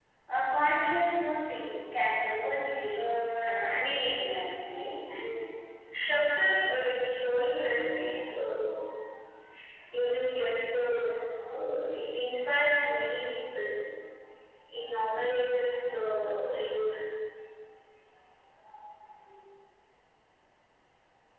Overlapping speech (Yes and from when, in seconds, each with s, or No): Yes, from 3.0 s